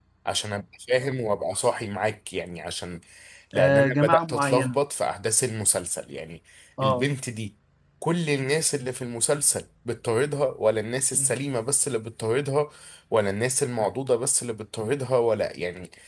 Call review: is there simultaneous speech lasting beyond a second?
Yes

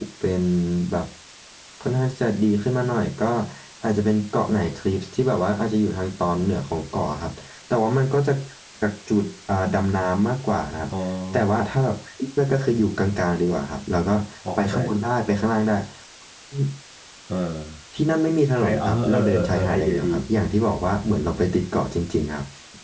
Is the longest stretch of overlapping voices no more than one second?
No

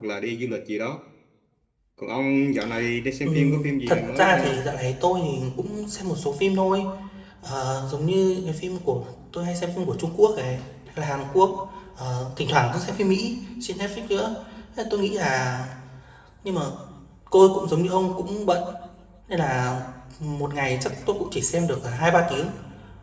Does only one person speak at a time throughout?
No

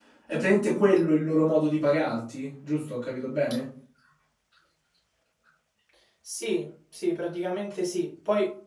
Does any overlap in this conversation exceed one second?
No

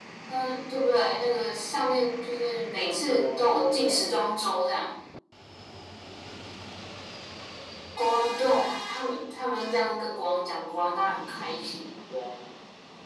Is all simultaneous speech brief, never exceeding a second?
No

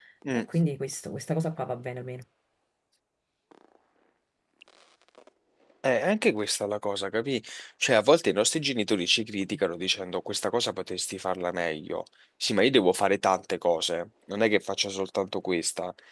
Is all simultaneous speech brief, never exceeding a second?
Yes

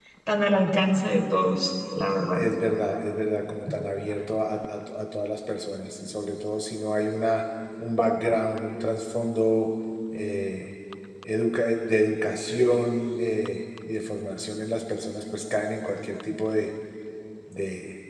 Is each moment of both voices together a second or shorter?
Yes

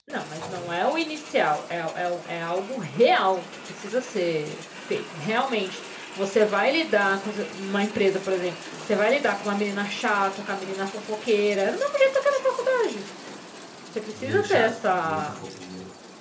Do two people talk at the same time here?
Yes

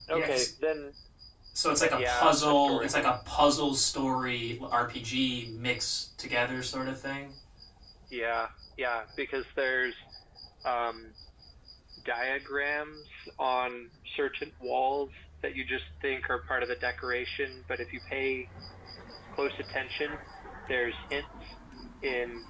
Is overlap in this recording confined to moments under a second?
No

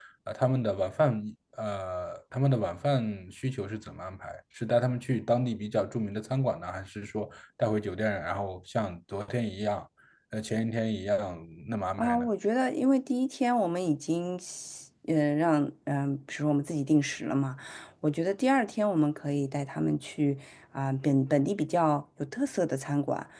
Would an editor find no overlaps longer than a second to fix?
Yes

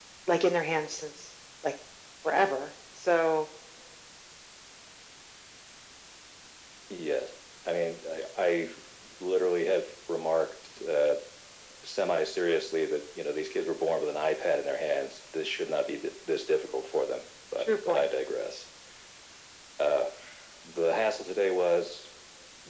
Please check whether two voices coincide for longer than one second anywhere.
No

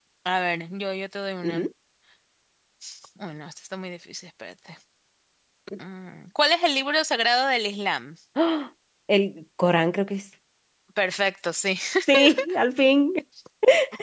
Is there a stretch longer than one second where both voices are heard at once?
No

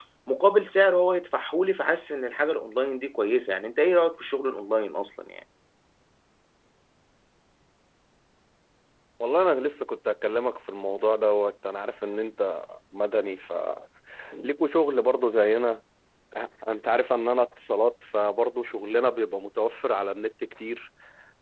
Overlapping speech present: No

